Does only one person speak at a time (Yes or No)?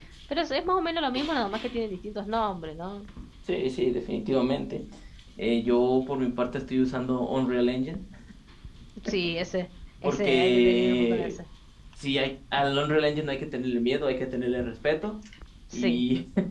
No